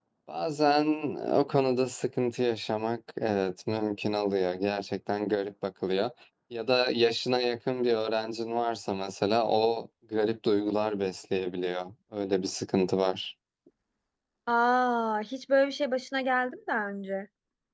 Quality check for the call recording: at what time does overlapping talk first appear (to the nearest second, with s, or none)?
none